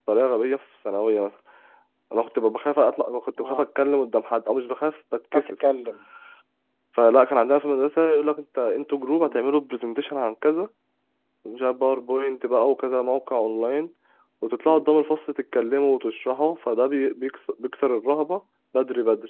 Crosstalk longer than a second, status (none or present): none